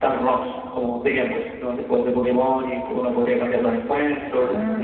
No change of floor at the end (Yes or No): No